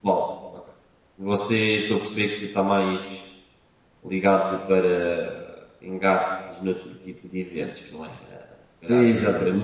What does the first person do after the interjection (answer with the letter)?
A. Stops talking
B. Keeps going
B